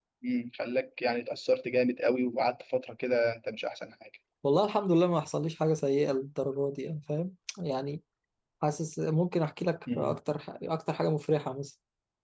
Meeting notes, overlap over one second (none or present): none